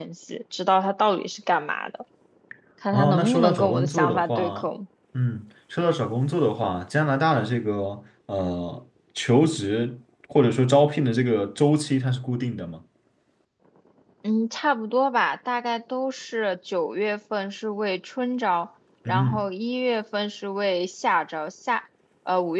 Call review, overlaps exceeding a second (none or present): present